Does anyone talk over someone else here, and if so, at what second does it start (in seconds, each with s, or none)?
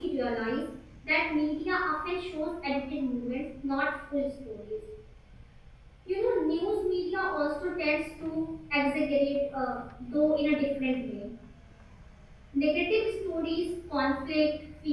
none